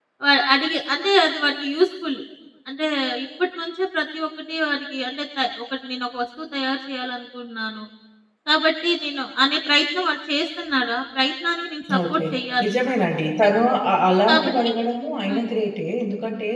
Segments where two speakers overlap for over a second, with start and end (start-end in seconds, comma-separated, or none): none